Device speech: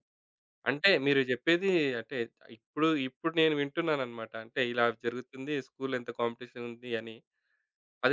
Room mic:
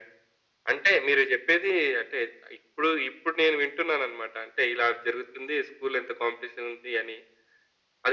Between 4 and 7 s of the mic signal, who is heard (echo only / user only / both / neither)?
echo only